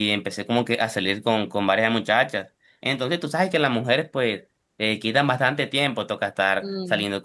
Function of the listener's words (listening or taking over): listening